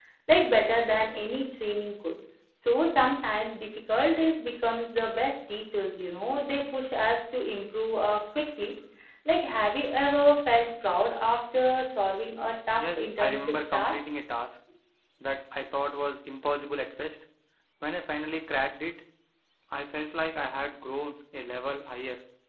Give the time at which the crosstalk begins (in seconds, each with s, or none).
12.8 s